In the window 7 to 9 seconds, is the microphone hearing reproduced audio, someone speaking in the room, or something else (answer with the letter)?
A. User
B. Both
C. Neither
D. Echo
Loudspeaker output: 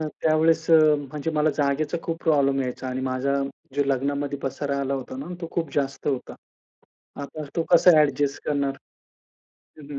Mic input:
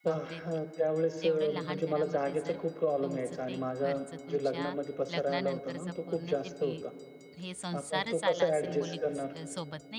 B